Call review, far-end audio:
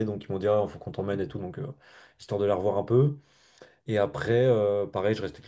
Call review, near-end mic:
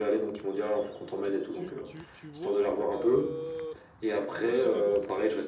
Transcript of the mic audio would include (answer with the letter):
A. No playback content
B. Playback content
B